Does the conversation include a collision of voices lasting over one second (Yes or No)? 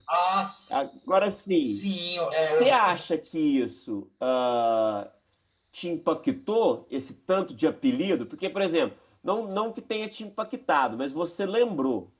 No